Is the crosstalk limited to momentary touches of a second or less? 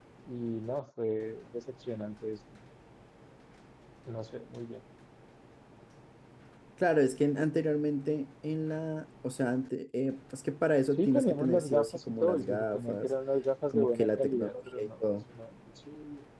No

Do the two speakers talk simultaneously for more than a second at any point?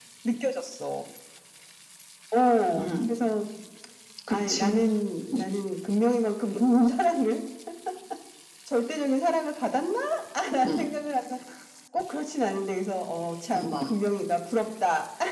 No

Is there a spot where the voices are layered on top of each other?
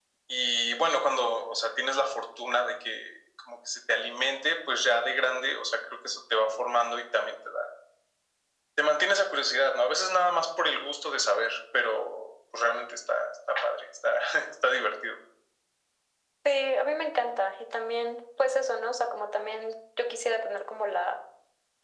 No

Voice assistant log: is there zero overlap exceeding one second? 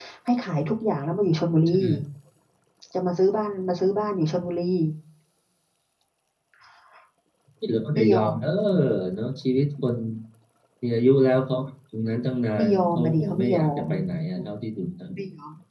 No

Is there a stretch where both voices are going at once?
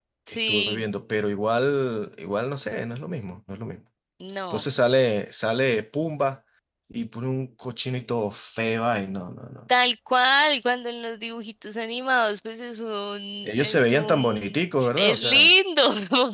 Yes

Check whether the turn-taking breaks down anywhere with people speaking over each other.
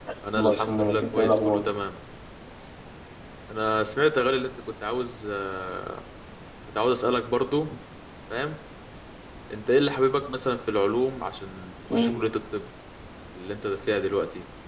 Yes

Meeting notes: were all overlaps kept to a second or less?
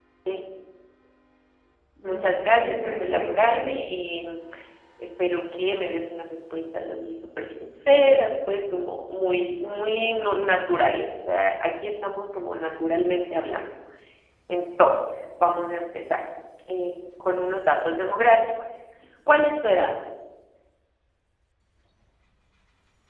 No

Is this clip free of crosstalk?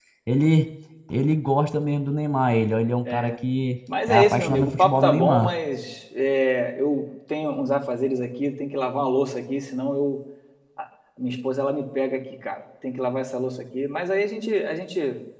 No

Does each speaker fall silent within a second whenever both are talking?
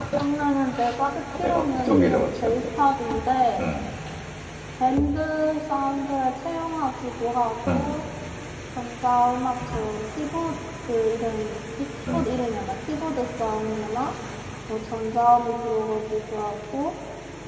No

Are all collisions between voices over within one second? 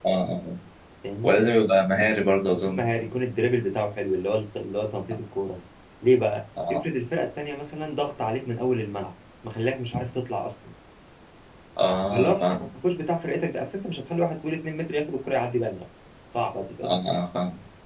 Yes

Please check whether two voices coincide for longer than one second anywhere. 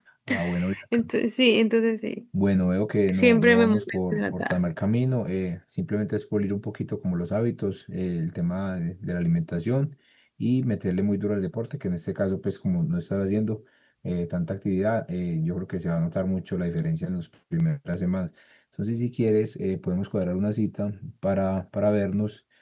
Yes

